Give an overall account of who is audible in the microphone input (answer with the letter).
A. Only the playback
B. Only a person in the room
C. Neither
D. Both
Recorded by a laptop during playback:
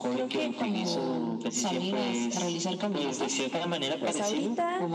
D